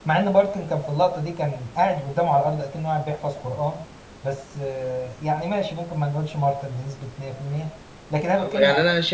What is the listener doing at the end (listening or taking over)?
taking over